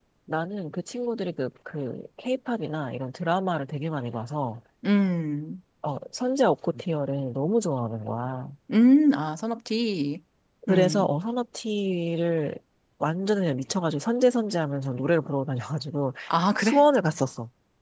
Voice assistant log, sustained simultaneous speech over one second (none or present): none